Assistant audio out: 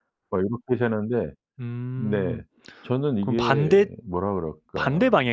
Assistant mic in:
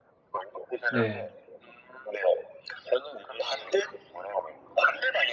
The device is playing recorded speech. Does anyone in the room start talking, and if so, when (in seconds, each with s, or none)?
0.9 s